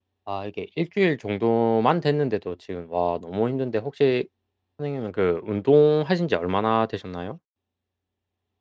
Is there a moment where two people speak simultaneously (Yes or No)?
No